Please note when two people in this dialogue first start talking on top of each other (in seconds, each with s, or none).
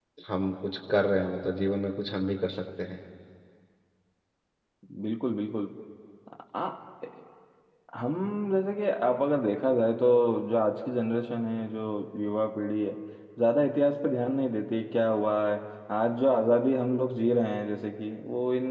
none